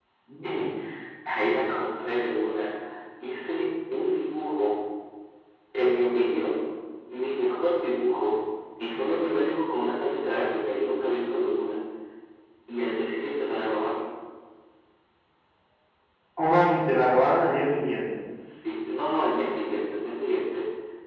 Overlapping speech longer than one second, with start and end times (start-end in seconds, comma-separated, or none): none